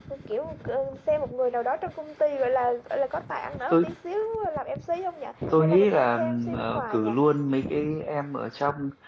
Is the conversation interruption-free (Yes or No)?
No